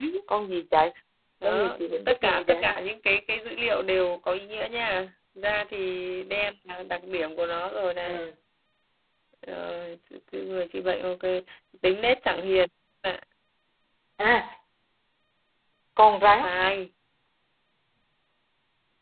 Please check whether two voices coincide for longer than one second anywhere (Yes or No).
Yes